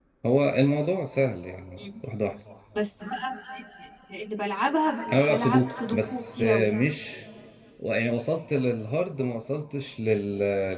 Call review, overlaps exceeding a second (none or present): present